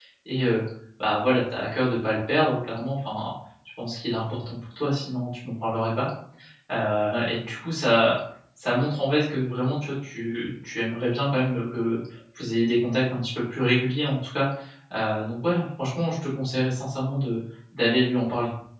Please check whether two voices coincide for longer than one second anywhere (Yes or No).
No